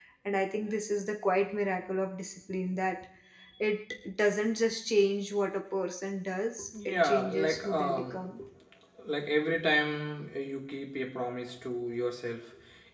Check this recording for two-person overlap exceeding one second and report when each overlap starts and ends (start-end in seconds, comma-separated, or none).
6.8-8.3